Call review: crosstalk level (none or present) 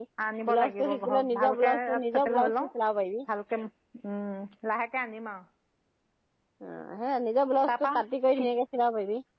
present